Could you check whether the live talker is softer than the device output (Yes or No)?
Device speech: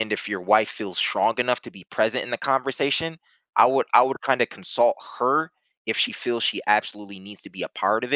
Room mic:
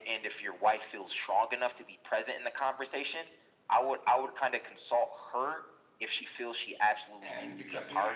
Yes